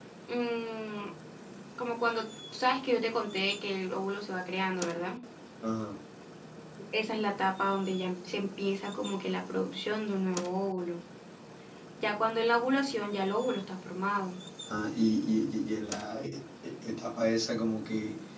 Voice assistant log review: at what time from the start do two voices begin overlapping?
none

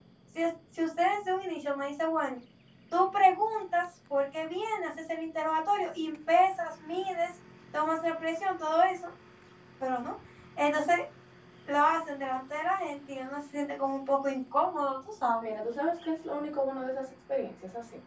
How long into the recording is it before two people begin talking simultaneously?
none

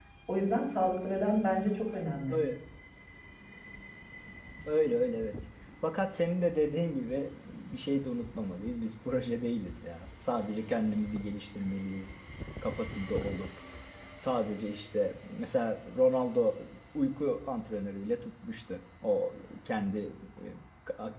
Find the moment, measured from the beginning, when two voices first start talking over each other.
none

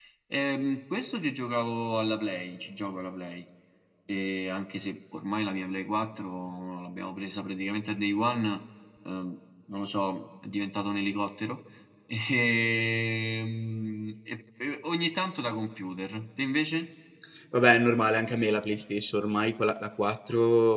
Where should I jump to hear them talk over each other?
none

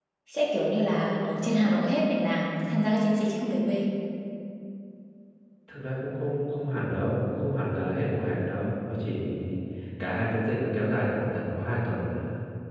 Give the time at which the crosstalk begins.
none

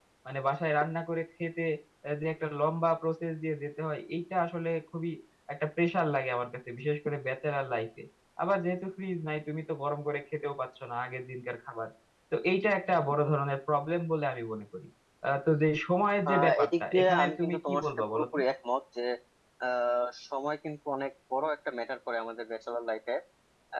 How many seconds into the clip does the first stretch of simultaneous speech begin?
16.2 s

